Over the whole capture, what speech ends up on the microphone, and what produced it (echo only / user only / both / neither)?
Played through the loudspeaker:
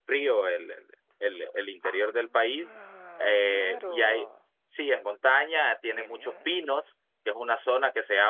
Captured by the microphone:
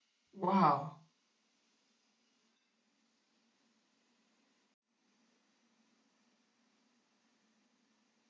user only